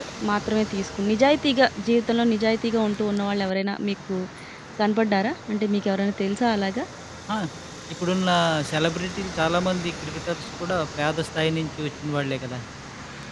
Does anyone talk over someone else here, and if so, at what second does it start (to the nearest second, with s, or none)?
none